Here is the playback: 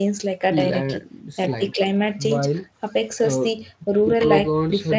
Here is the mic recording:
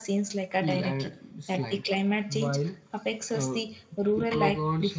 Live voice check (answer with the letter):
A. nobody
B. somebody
A